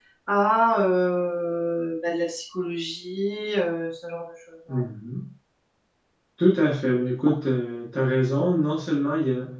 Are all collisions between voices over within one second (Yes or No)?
Yes